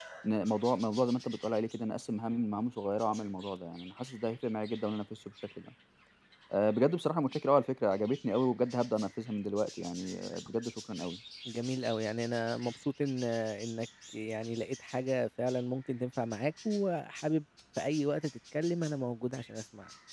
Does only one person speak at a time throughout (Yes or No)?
Yes